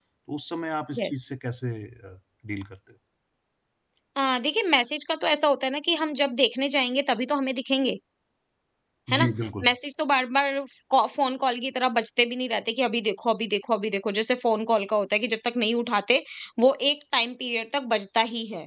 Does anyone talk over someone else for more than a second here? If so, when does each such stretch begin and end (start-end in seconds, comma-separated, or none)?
none